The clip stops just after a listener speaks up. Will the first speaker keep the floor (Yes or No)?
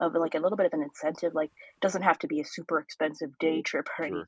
Yes